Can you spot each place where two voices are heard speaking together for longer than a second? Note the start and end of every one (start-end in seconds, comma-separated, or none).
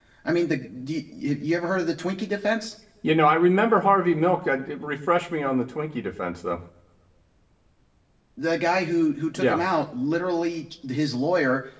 none